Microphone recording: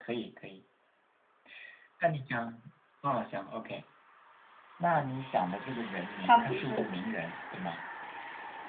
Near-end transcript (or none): 他不是，